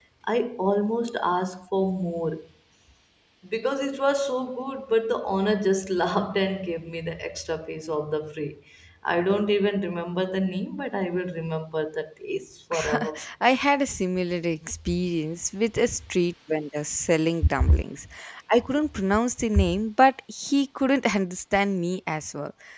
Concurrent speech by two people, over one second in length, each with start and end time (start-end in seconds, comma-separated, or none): none